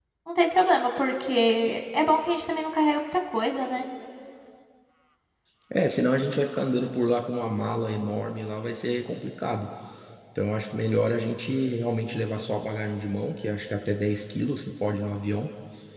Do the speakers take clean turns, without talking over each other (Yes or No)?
Yes